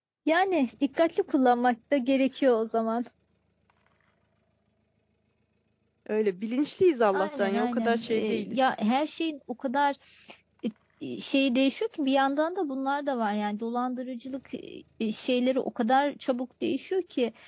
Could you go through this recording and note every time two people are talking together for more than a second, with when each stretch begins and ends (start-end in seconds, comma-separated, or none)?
7.1-8.6